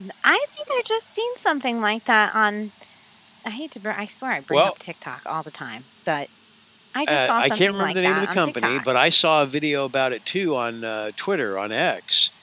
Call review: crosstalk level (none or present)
present